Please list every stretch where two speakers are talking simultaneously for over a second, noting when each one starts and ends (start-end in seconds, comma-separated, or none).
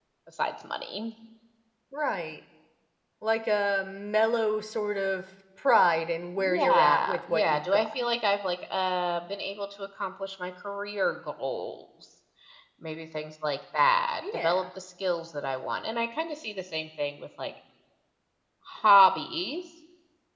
6.4-7.9